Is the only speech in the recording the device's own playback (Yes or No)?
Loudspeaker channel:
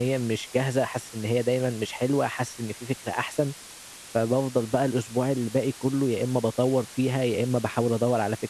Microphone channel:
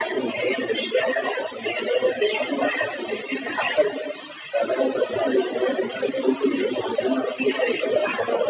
Yes